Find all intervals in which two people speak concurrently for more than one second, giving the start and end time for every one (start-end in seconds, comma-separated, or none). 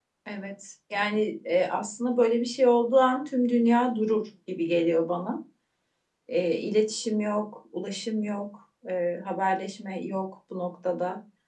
none